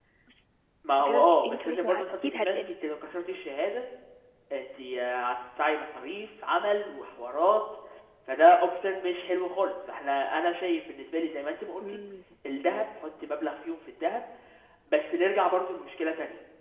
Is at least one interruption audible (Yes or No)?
Yes